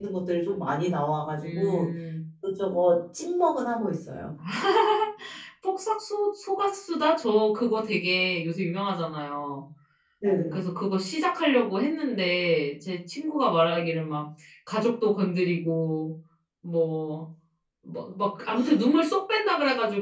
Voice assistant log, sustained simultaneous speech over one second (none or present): none